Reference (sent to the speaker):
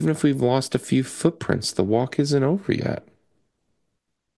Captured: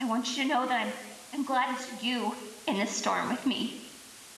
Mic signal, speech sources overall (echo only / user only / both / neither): user only